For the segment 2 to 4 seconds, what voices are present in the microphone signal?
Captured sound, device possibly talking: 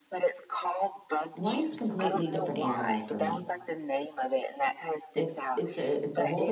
both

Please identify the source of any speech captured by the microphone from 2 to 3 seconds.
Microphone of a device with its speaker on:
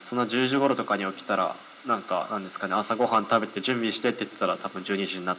echo only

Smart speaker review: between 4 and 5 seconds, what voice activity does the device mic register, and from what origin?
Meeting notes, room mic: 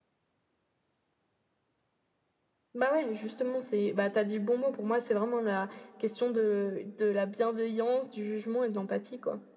echo only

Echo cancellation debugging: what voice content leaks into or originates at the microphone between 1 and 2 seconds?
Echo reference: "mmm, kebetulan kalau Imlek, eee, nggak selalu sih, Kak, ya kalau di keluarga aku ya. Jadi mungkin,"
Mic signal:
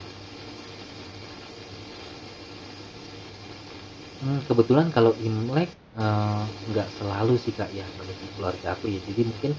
neither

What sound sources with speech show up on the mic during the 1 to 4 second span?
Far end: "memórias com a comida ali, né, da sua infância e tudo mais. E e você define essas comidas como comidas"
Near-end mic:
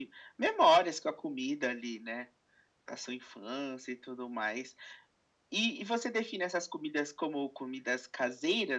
echo only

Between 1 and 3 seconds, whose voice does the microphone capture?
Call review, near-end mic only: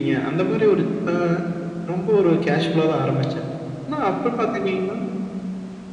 echo only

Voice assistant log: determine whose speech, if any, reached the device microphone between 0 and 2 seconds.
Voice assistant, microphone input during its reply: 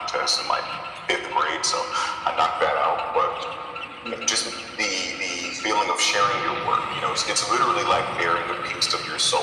echo only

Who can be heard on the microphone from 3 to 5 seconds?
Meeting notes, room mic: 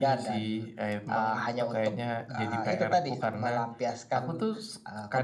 echo only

